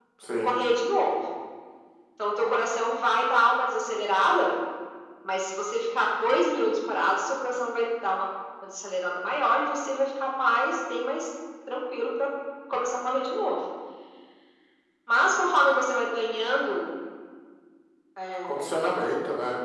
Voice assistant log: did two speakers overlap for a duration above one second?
No

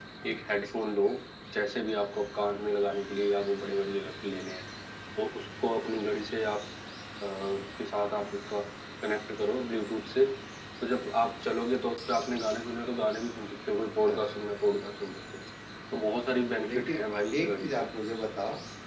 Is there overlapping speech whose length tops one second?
No

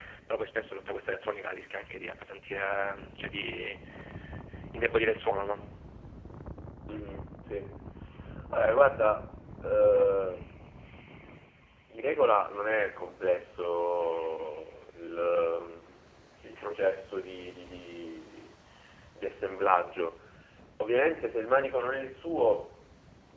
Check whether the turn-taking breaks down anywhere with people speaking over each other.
No

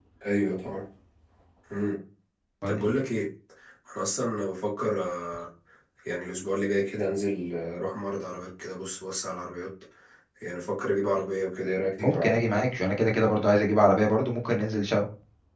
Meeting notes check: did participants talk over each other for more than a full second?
No

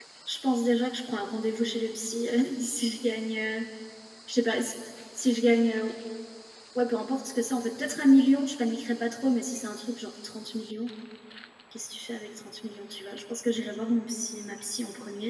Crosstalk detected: No

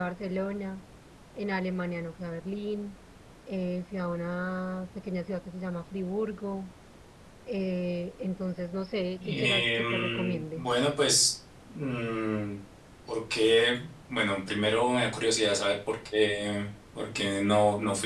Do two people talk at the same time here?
Yes, from 9.2 s

